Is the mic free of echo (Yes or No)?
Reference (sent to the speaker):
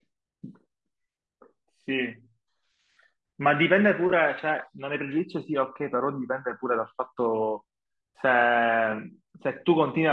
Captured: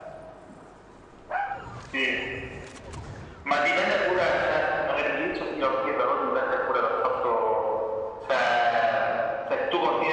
No